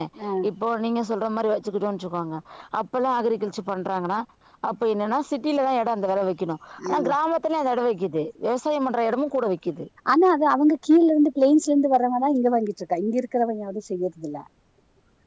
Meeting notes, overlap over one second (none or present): none